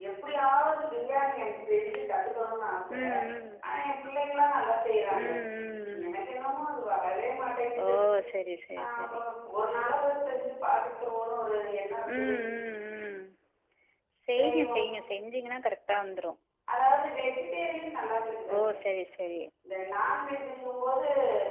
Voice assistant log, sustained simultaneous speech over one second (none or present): none